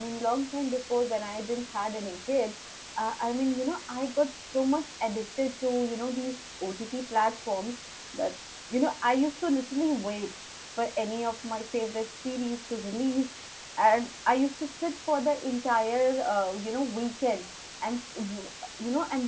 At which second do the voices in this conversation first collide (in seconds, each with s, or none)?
none